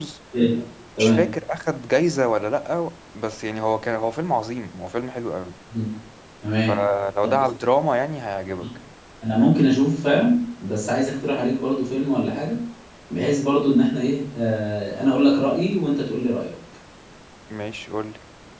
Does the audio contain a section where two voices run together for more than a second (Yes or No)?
No